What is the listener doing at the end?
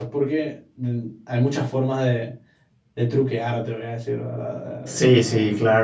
taking over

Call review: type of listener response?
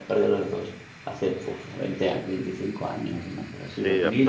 taking over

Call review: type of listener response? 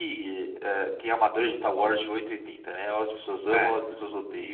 listening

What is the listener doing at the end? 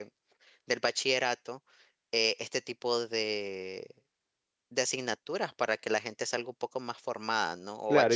taking over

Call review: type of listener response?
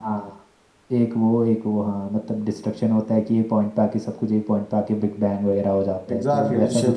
taking over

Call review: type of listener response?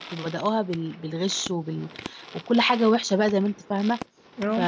listening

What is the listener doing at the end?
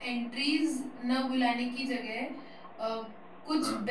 listening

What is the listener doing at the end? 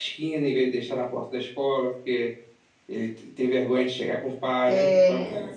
listening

